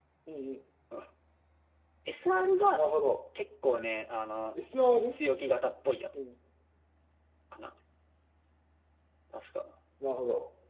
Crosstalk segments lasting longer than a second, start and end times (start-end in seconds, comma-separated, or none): none